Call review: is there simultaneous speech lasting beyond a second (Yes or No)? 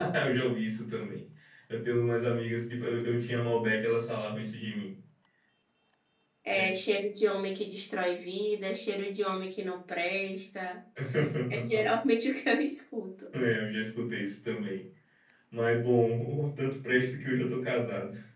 No